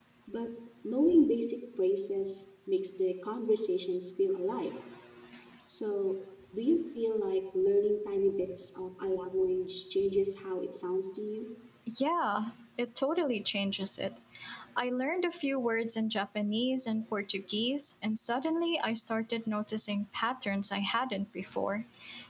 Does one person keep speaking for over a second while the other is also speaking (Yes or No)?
No